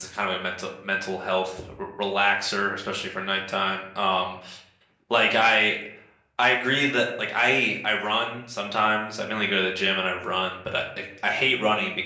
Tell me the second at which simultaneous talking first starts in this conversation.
none

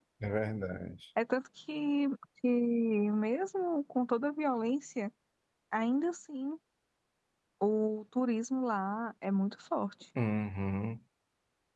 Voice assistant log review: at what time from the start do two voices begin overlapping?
none

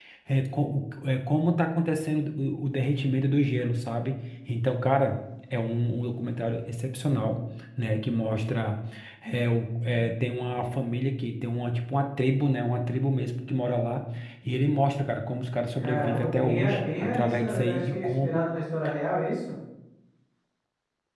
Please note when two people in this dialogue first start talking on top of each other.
16 s

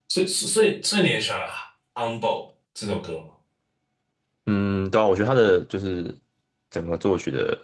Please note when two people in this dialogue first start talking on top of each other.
none

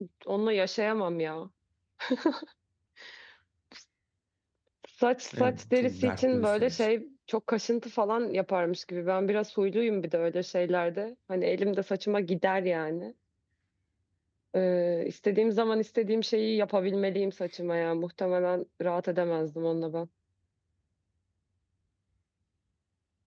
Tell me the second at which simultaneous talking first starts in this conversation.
5 s

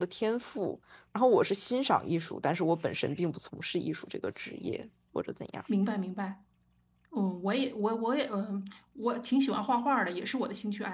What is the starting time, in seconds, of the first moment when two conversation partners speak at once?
none

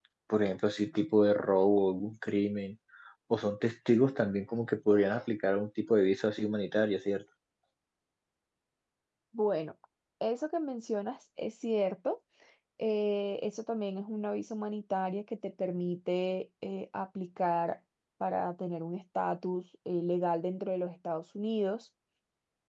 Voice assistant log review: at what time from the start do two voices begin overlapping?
none

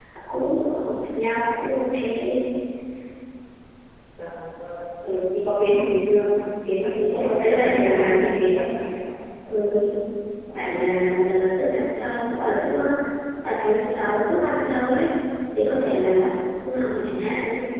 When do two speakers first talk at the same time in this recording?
7 s

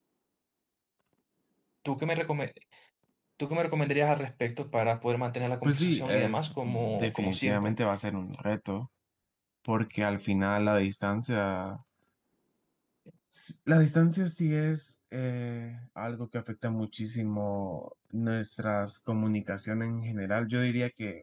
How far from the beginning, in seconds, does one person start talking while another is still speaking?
6 s

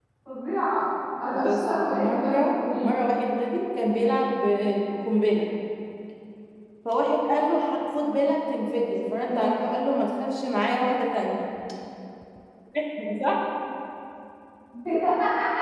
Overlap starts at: 1 s

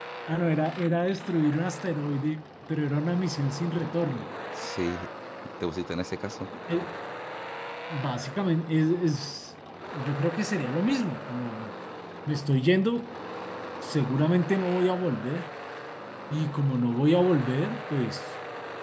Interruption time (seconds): none

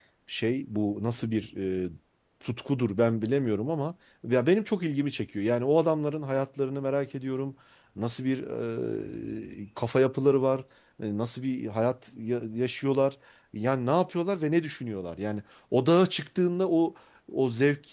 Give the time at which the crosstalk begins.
none

